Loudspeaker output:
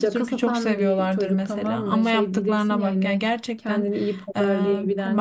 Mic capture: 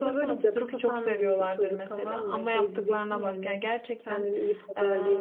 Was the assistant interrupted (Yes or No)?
No